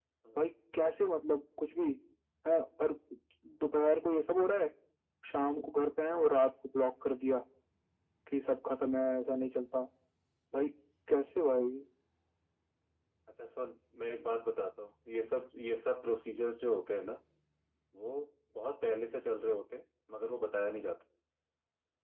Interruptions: none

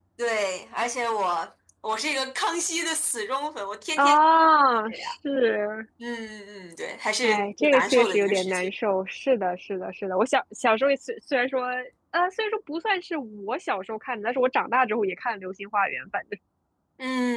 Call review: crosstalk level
present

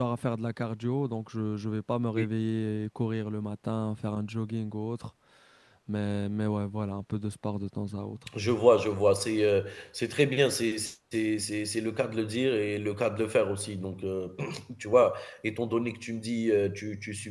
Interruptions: none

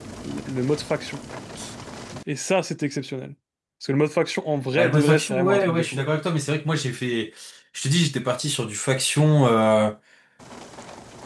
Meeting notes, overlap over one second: present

